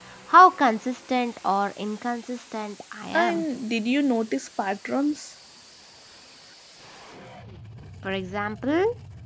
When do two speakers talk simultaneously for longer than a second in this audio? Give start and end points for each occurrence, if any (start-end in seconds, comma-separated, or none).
none